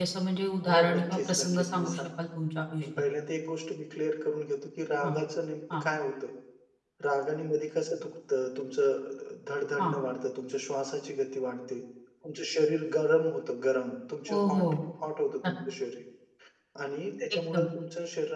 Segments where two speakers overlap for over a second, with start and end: 0.7-2.0

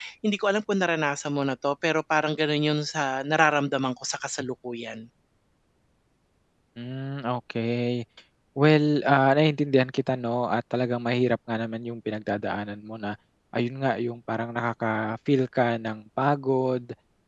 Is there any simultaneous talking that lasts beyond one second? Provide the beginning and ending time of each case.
none

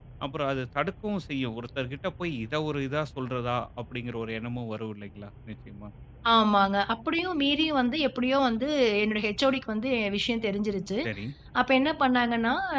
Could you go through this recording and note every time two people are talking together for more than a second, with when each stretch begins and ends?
none

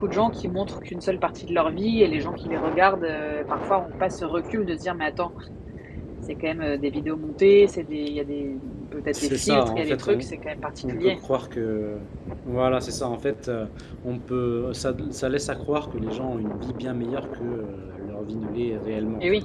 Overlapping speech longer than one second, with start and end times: 9.1-10.3

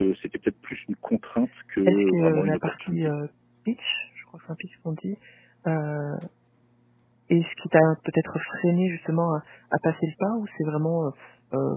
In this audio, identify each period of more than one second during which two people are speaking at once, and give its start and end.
1.9-3.1

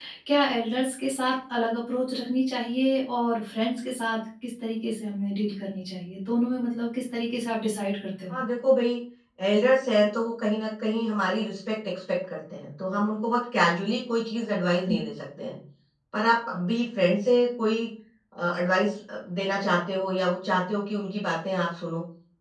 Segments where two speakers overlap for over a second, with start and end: none

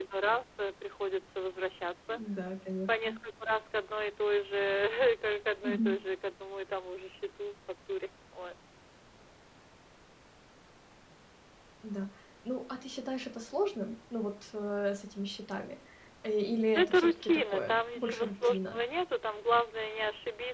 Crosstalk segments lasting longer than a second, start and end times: 16.8-18.8

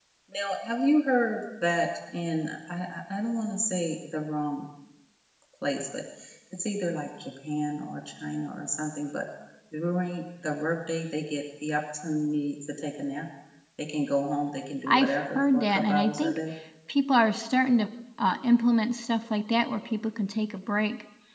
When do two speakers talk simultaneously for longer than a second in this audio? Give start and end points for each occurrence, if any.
14.9-16.4

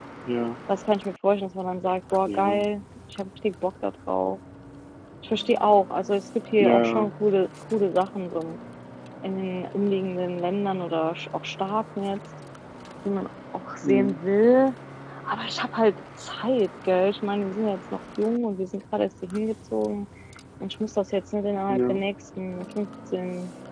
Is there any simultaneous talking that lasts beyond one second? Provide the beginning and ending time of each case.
none

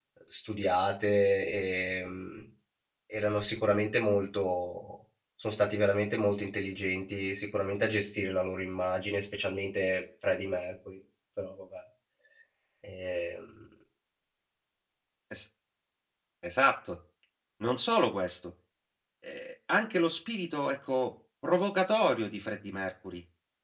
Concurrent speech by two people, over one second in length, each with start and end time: none

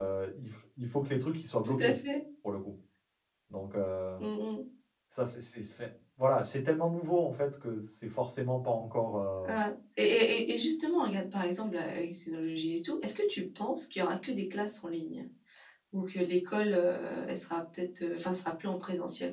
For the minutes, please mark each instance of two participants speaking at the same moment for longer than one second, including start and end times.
none

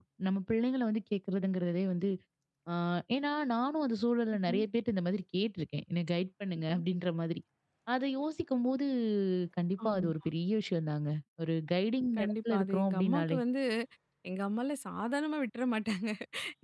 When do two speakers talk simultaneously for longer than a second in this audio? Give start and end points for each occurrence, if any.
12.2-13.4

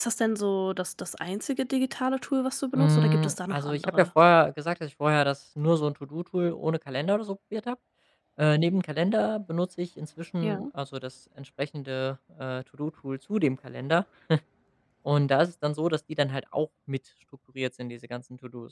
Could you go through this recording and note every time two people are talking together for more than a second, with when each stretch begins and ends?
2.8-4.1

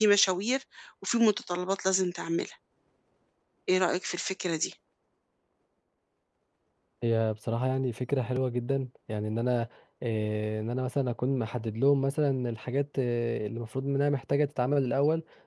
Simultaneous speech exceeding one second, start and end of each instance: none

